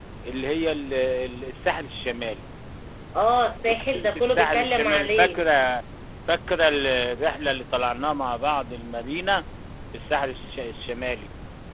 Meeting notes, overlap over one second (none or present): present